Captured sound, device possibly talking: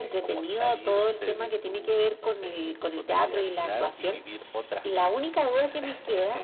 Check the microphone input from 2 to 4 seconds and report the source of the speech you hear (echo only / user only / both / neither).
echo only